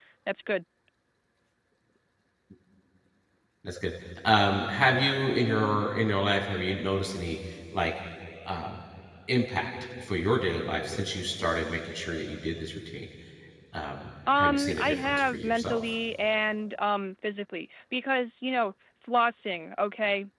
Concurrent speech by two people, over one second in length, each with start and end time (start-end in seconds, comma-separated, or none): 14.4-15.8